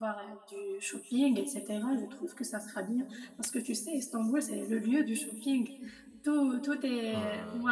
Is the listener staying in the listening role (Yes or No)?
Yes